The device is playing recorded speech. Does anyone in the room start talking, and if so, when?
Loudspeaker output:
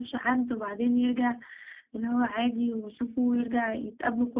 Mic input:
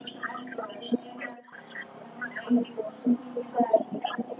none

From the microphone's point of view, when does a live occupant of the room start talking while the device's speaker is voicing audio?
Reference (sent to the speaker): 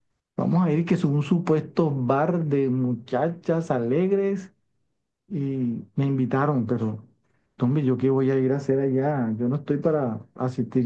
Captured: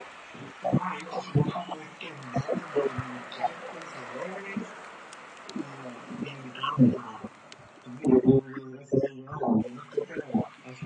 none

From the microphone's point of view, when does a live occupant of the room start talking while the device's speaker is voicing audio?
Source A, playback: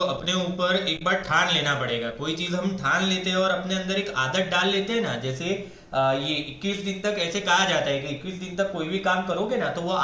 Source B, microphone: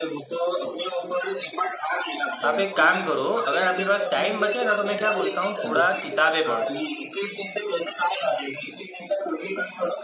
2.4 s

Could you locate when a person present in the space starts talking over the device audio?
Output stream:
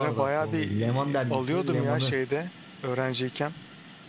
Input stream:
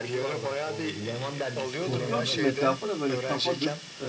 1.9 s

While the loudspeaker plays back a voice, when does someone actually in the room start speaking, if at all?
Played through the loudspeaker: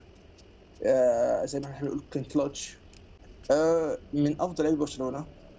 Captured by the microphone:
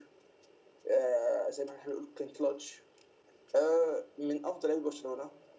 none

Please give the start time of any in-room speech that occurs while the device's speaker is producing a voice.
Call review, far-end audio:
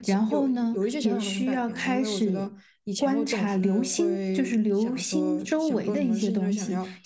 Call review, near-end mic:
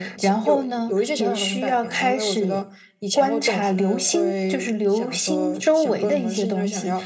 none

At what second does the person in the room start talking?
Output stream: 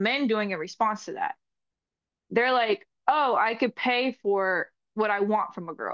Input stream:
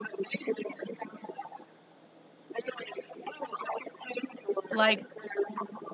4.7 s

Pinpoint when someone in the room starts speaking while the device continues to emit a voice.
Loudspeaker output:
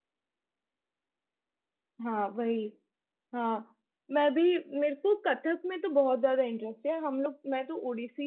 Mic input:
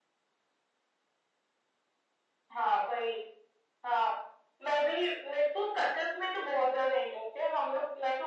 none

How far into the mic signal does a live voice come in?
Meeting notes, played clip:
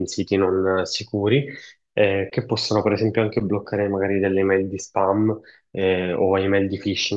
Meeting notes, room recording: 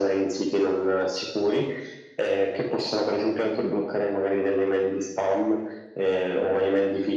none

